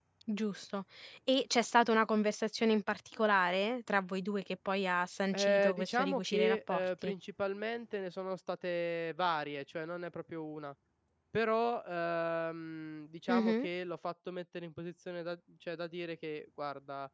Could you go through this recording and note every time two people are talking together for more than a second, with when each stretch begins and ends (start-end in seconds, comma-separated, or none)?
5.3-7.1